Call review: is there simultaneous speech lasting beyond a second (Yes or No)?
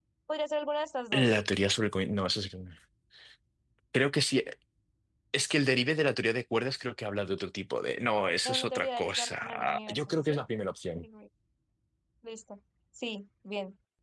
Yes